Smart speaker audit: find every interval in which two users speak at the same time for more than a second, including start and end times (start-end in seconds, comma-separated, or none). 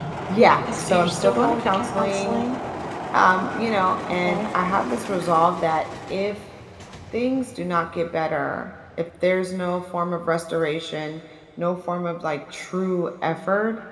0.8-2.4